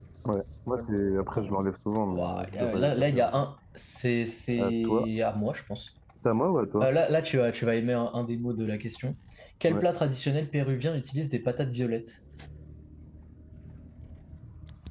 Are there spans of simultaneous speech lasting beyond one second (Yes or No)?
Yes